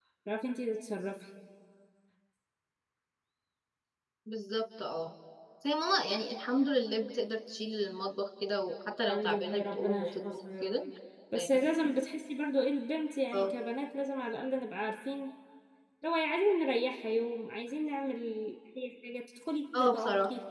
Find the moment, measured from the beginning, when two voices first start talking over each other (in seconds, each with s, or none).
9.1 s